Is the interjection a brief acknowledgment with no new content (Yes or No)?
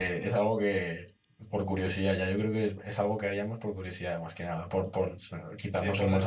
No